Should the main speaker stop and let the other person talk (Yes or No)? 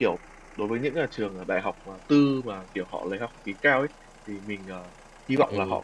No